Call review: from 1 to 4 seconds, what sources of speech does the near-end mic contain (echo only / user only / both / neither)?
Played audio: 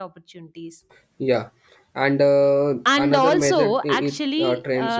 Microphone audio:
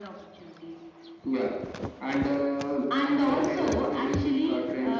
echo only